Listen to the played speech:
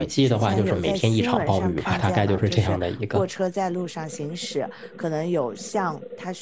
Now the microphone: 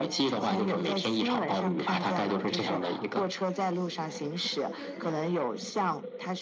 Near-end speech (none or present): present